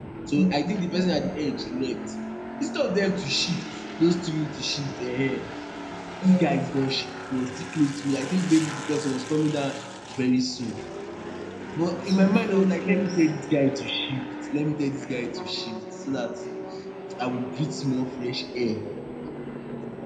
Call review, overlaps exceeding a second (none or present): present